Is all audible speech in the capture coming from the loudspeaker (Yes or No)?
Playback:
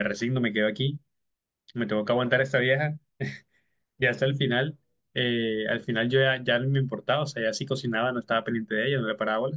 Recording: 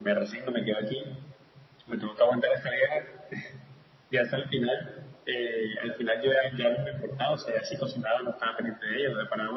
Yes